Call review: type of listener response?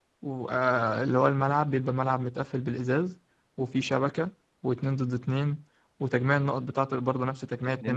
taking over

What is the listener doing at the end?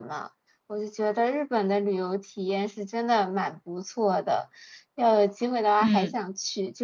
listening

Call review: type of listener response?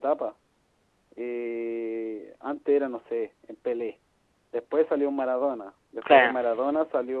listening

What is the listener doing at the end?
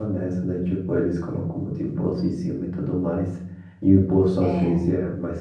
listening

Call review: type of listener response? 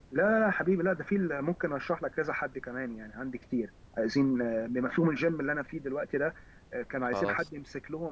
listening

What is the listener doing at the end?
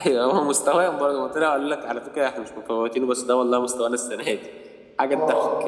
taking over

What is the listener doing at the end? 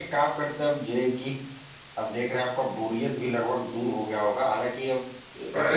listening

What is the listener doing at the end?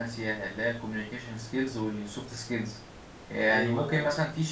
listening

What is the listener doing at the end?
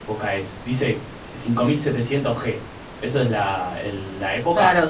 taking over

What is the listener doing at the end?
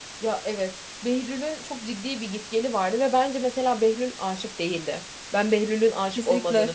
listening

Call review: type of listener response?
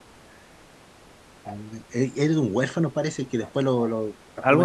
listening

